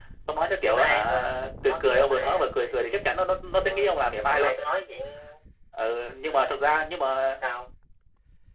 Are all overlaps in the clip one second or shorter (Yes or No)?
No